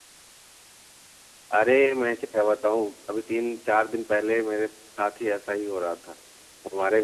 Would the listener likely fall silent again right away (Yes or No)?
Yes